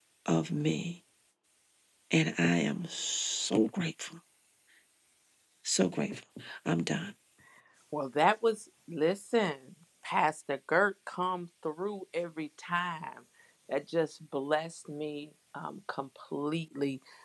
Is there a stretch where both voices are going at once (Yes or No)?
No